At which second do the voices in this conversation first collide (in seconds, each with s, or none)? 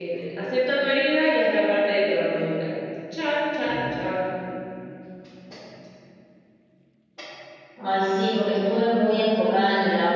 none